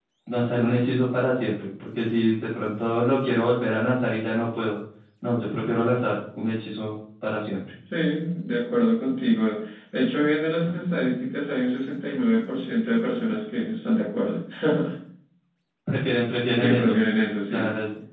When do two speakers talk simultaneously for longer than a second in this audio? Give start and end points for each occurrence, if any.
none

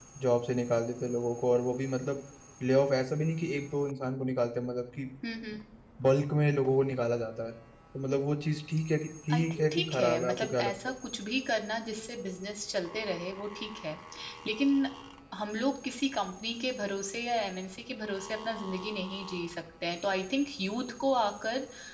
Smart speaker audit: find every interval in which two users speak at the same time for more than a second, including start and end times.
9.3-10.7

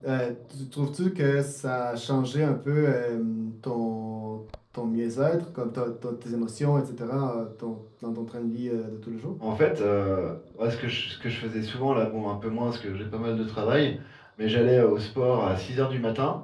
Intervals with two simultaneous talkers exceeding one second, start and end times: none

